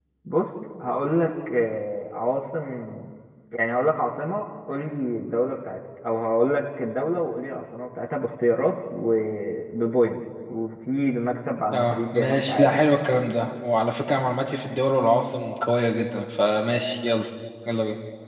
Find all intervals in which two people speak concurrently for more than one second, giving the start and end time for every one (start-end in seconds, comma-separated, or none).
11.7-13.0